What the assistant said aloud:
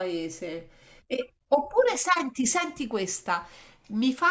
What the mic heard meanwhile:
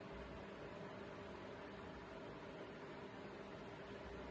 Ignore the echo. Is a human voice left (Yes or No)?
No